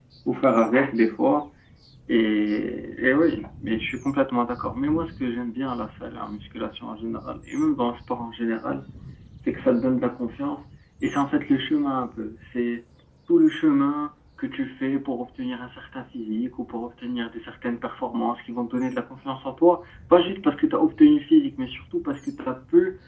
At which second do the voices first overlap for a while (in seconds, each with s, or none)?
none